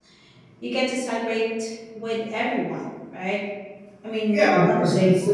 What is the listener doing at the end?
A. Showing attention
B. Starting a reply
B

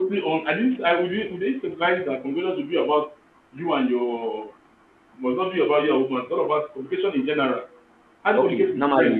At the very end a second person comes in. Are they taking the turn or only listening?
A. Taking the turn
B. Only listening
A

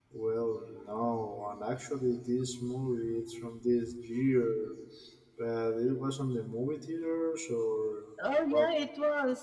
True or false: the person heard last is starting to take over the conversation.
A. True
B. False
A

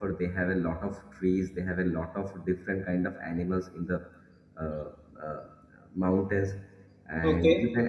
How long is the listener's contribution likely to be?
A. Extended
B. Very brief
B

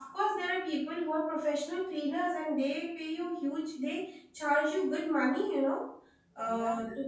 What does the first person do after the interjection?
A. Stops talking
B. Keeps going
B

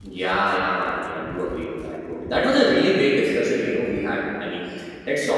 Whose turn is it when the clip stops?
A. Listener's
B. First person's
B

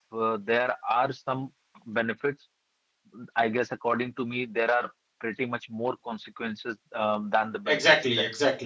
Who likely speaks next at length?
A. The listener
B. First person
A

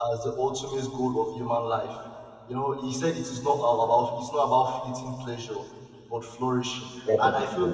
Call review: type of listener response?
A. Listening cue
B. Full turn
A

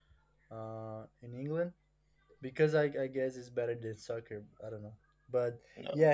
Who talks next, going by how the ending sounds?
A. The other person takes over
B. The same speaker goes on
B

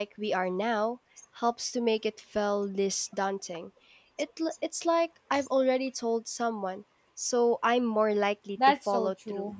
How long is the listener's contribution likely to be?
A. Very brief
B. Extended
B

